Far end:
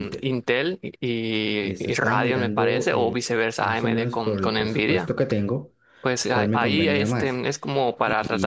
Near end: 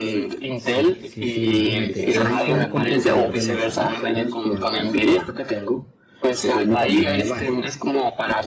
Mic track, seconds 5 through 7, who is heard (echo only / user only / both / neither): echo only